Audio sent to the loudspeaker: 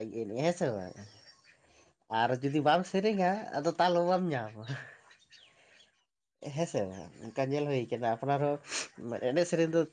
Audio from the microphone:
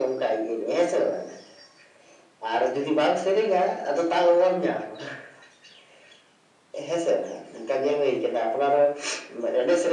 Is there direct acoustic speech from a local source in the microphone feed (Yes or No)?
No